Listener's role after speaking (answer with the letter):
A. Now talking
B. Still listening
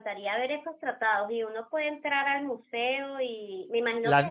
B